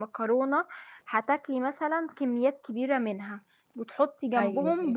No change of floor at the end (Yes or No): Yes